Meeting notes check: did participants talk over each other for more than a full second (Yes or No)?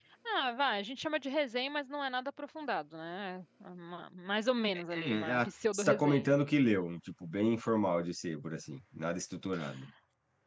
Yes